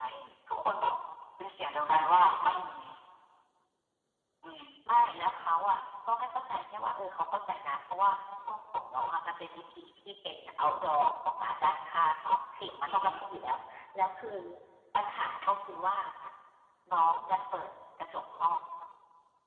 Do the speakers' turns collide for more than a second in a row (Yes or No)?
No